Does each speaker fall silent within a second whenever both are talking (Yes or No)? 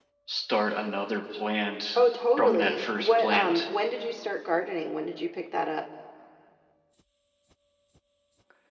No